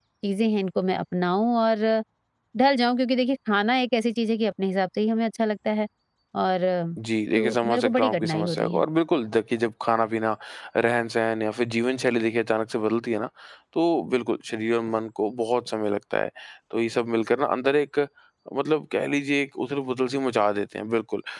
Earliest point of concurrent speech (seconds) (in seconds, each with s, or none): 7.4 s